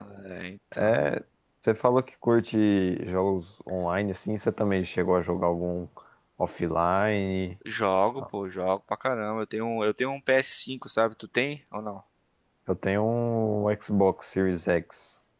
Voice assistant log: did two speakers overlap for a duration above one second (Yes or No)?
No